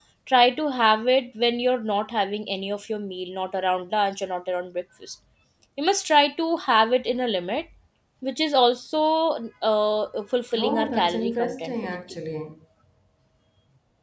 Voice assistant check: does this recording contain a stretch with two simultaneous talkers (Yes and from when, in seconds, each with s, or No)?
Yes, from 10.5 s